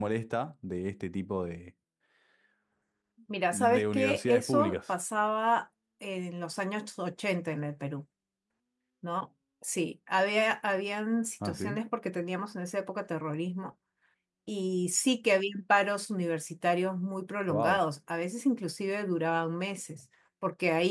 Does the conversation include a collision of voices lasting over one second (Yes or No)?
Yes